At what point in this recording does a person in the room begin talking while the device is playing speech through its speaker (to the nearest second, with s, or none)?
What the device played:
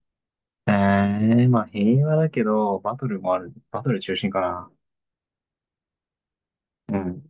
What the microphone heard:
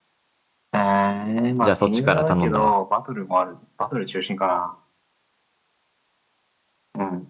2 s